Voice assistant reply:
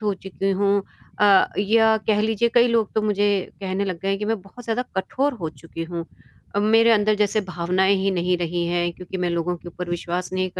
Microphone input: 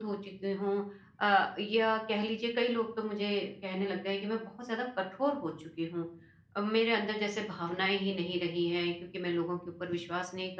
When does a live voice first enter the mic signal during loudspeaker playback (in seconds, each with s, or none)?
none